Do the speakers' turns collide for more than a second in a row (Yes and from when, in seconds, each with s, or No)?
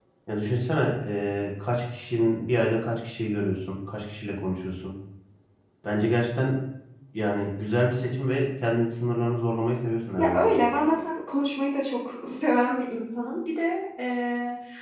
No